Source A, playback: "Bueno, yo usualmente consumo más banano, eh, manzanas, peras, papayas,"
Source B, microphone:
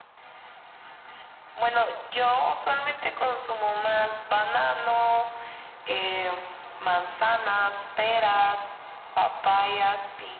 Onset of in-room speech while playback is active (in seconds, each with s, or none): none